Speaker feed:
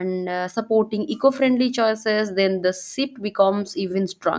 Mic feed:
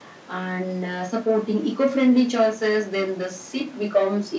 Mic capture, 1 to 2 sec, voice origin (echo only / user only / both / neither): echo only